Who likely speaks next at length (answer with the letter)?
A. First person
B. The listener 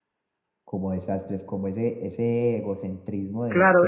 B